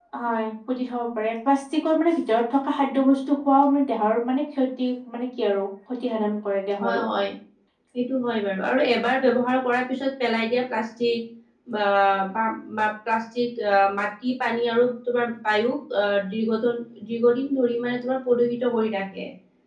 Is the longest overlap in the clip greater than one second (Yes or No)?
No